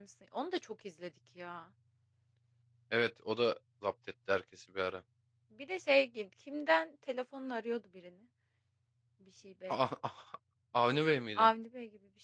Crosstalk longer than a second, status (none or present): none